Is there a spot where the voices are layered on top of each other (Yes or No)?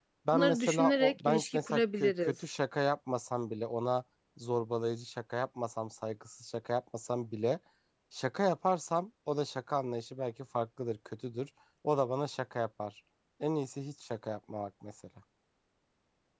Yes